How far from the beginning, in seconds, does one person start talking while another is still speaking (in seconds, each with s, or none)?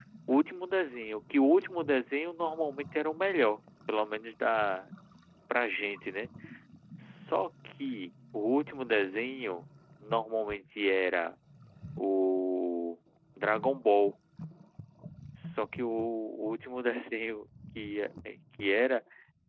none